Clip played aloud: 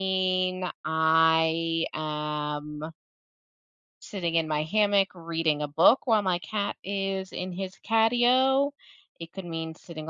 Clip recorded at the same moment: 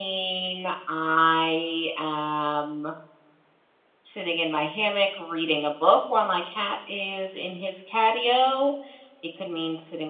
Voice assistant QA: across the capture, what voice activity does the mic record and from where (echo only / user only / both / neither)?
echo only